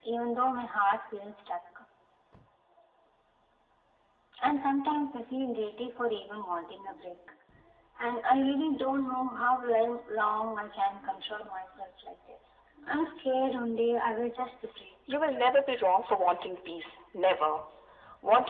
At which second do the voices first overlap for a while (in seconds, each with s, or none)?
none